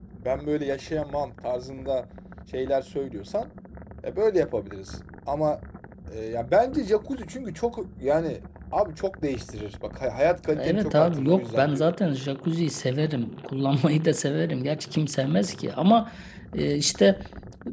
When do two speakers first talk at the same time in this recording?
10.5 s

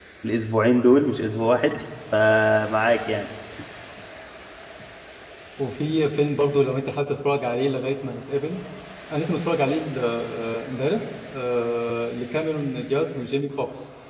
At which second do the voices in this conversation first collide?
none

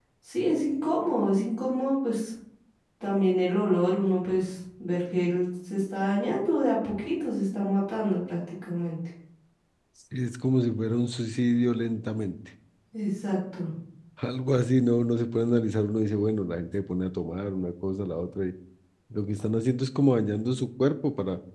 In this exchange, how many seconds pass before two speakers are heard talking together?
none

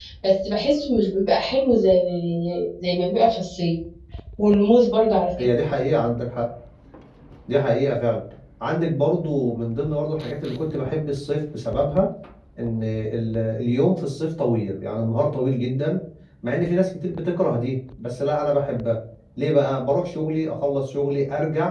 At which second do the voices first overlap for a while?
none

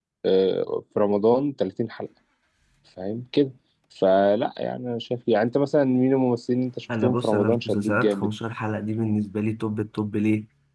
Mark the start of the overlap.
6.9 s

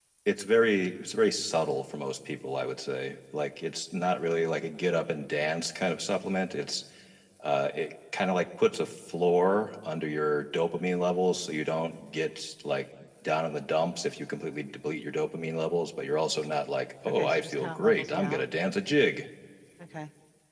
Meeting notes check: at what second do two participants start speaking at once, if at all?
17.0 s

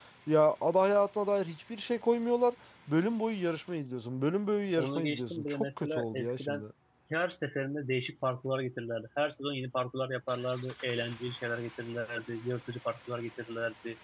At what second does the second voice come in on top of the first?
4.8 s

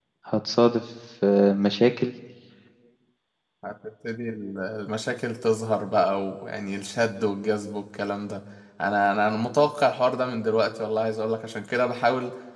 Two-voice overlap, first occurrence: none

